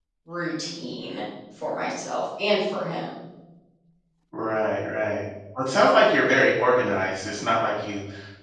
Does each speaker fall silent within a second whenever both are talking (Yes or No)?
Yes